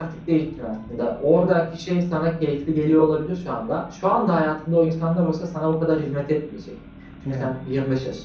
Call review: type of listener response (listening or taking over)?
listening